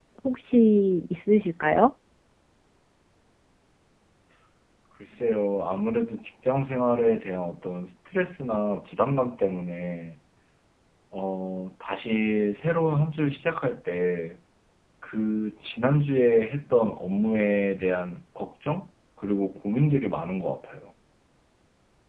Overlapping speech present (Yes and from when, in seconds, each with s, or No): No